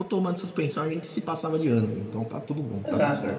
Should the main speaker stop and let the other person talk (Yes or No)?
Yes